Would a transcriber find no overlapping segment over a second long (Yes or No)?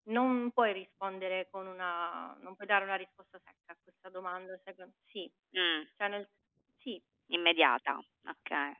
Yes